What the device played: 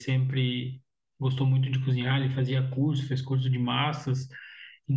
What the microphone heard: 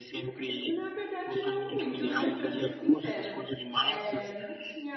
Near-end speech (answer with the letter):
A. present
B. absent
A